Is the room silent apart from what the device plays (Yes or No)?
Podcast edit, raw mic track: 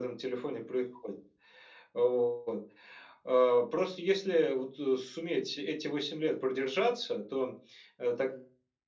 Yes